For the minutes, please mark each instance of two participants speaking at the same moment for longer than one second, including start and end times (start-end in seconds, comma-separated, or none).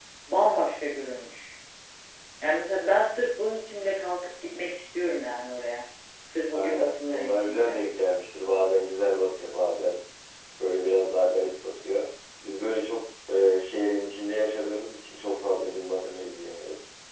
6.5-7.8